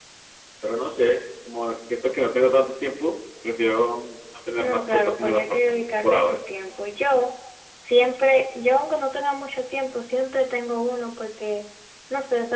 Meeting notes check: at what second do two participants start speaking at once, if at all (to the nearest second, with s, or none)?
5 s